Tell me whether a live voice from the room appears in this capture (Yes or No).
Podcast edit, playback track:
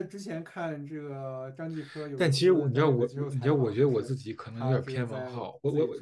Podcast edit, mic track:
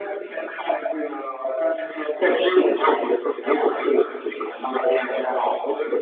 No